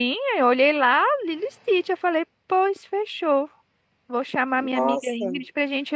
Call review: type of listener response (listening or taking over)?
listening